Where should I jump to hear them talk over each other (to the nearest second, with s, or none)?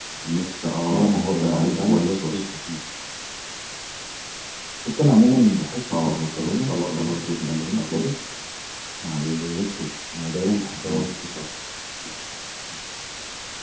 1 s